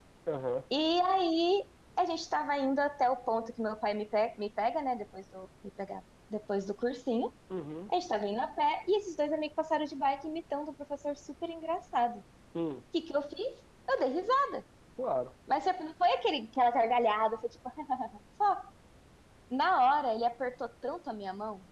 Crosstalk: none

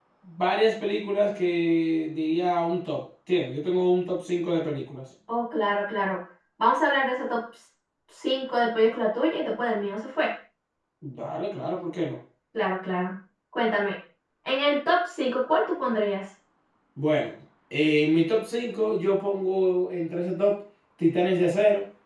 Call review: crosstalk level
none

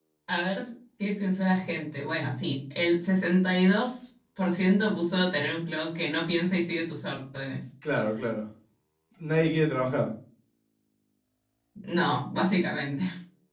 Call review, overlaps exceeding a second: none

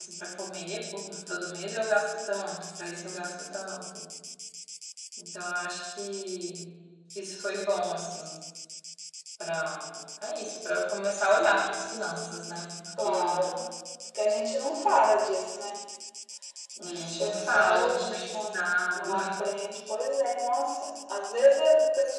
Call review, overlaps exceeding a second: present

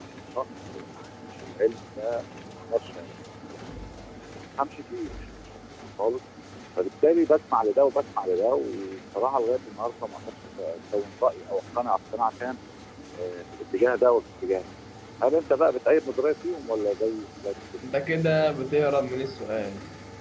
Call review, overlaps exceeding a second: none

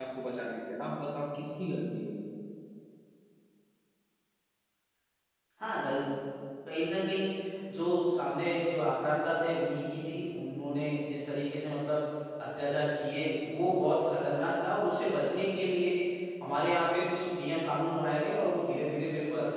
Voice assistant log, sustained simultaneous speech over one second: none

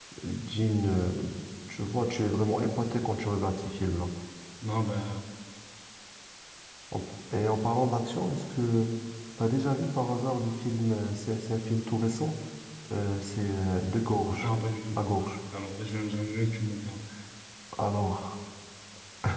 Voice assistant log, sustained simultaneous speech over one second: none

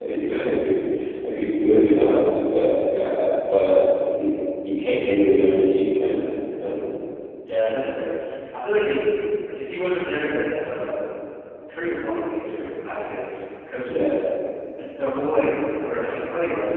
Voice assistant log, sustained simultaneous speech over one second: none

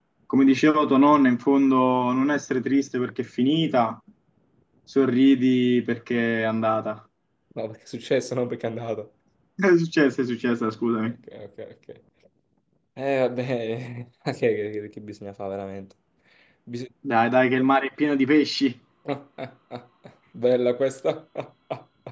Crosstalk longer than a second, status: none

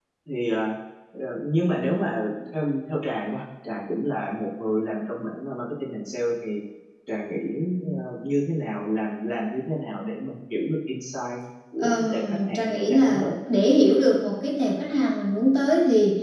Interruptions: present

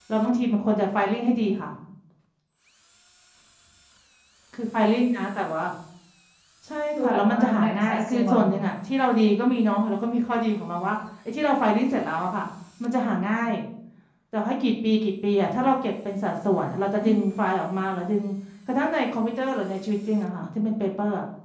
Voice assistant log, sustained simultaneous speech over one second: present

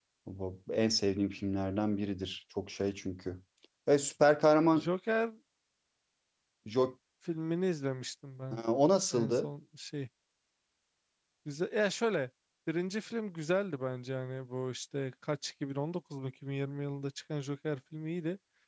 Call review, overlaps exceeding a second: none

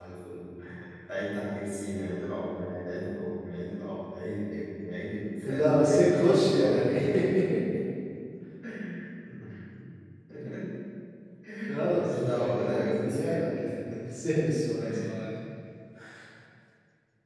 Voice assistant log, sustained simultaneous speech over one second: present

